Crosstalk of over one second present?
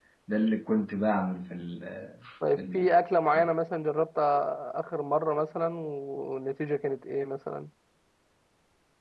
No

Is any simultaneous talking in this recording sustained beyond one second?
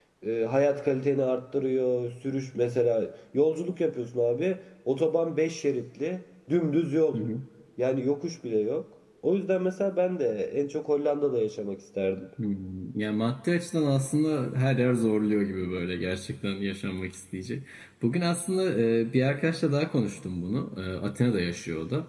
No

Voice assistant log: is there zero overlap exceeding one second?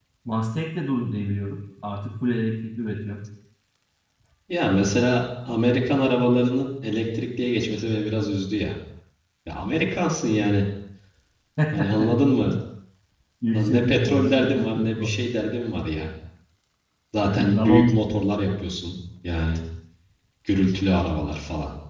No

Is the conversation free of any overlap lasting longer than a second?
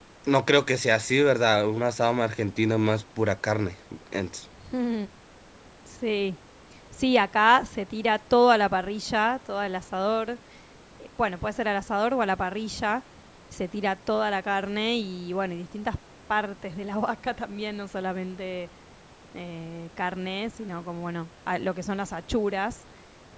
Yes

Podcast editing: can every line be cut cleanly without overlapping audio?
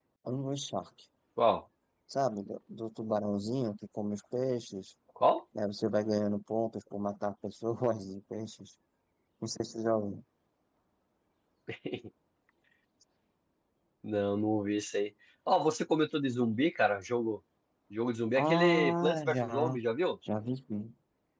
No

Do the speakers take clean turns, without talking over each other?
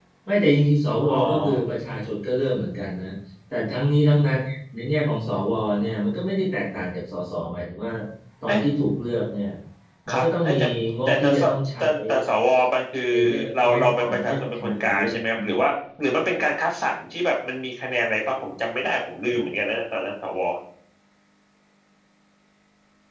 No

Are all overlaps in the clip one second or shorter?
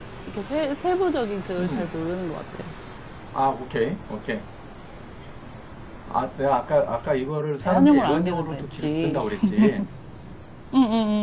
No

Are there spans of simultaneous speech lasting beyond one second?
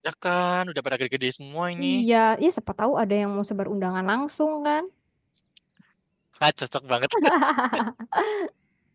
No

